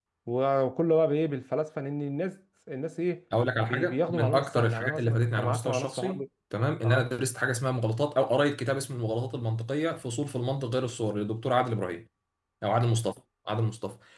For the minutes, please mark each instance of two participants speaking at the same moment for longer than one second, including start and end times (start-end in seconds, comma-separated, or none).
3.6-6.2